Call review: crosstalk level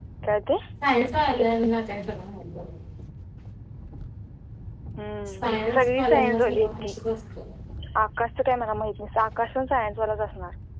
present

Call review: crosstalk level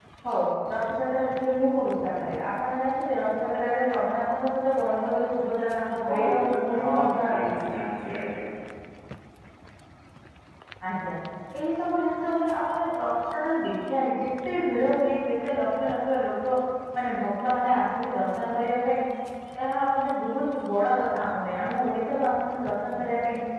present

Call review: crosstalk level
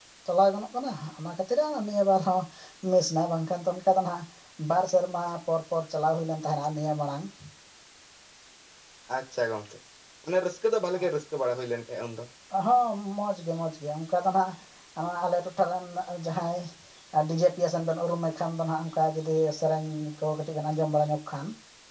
none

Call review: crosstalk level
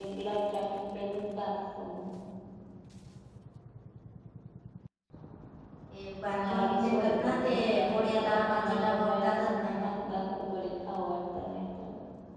present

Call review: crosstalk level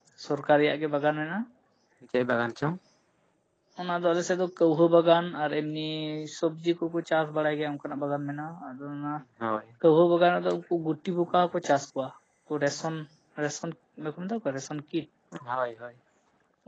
none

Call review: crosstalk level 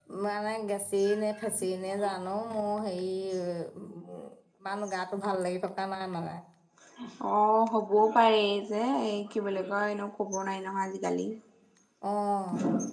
none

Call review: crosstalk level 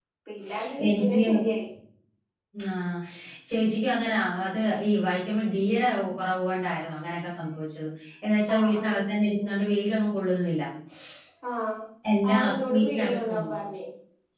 present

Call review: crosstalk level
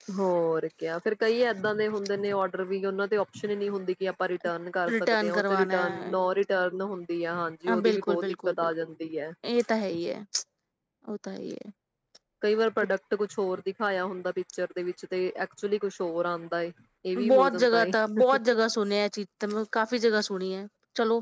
present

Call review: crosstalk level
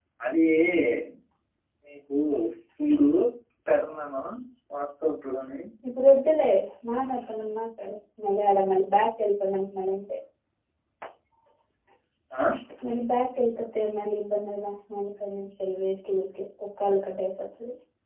none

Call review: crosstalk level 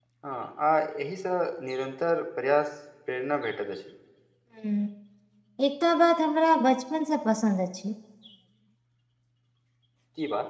none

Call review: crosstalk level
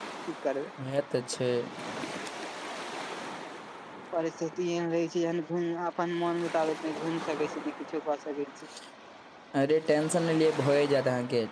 none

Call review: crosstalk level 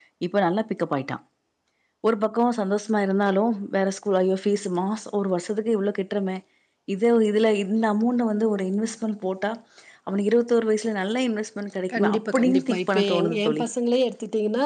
present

